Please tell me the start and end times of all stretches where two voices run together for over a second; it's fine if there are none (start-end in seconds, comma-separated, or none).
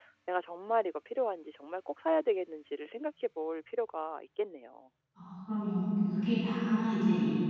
none